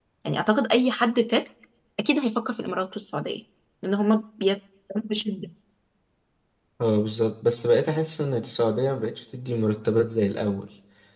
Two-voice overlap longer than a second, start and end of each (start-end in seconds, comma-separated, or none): none